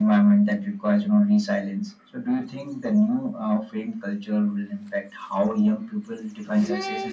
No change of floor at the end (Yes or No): No